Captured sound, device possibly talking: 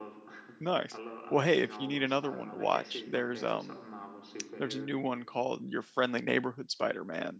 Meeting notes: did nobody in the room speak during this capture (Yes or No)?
No